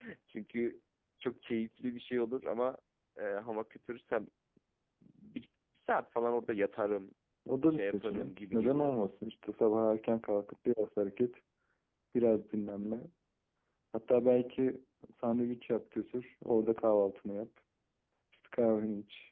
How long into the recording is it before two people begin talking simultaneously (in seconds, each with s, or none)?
7.7 s